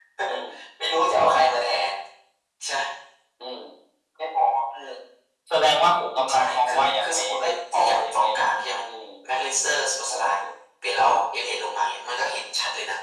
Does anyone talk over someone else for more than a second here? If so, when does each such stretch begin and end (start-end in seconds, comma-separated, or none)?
6.3-8.2